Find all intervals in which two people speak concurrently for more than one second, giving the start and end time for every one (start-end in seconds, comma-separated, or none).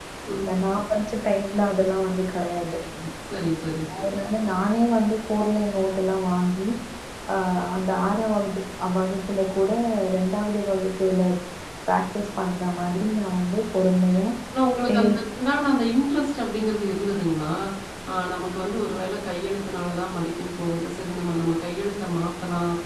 none